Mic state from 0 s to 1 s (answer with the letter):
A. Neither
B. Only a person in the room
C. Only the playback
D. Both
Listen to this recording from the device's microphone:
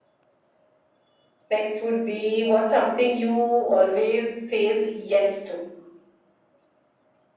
A